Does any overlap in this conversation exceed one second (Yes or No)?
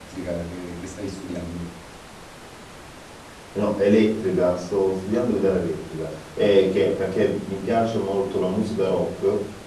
No